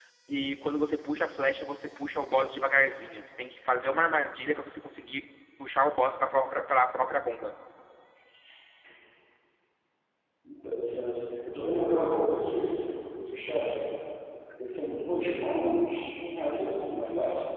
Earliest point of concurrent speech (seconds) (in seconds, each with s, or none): none